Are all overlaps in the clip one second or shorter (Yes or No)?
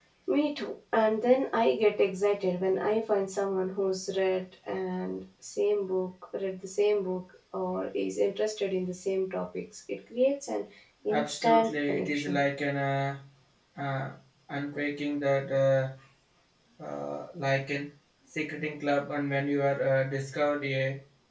No